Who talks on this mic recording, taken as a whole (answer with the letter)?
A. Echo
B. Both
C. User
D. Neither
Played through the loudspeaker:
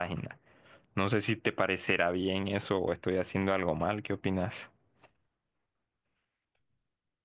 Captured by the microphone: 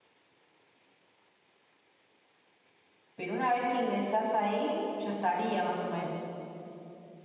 C